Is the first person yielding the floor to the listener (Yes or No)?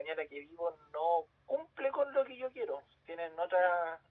No